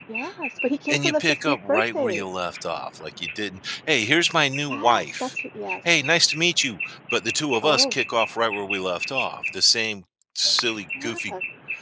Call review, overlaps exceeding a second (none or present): present